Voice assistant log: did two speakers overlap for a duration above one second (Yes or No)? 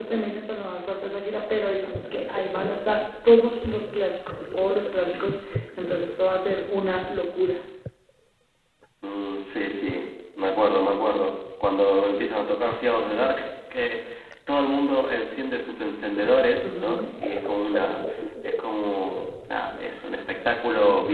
No